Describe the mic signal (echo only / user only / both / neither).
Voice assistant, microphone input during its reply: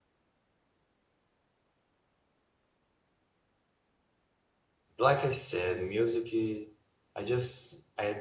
user only